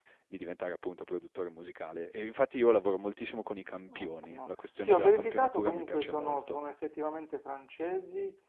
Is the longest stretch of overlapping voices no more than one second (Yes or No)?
No